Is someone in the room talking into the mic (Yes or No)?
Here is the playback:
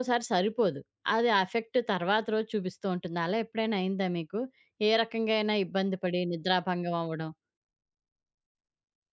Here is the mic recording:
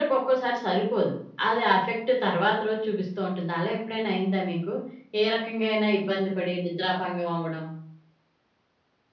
No